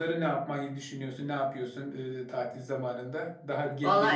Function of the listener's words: taking over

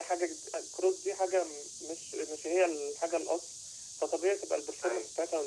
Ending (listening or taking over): listening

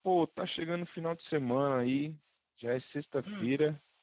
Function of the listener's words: listening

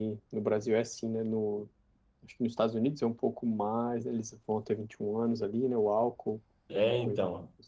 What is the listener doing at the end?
taking over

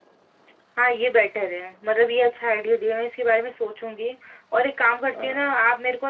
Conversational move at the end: listening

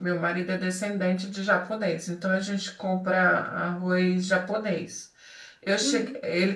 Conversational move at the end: listening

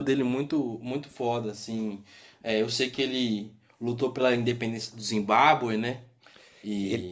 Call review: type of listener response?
taking over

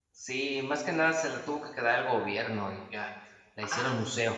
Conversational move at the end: taking over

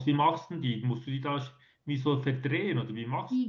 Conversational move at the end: taking over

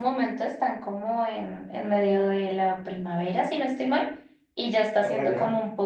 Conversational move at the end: listening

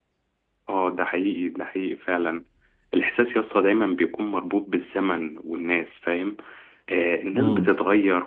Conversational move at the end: listening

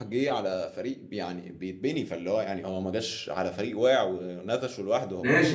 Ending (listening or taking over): taking over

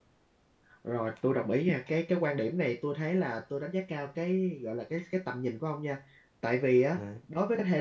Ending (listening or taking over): listening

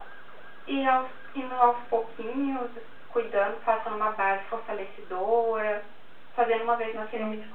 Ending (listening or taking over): listening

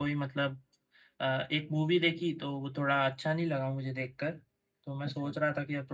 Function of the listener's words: listening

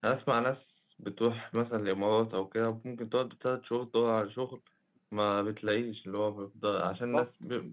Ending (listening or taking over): listening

